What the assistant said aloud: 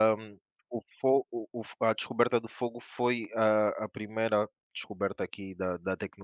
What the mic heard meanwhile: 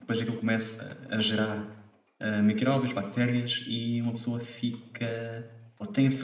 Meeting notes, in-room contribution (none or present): present